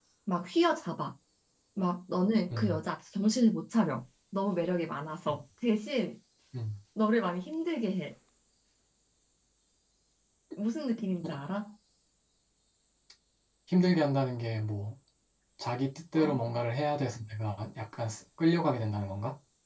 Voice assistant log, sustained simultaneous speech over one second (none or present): none